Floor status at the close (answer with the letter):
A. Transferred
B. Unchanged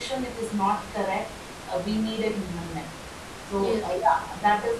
B